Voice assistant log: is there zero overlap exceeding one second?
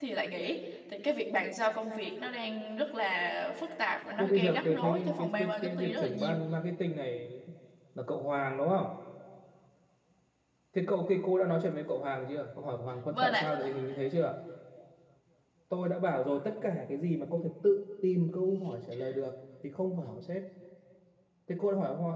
No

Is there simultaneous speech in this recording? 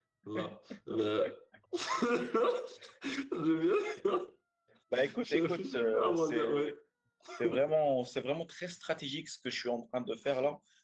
Yes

